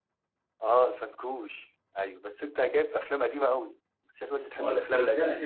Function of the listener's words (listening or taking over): taking over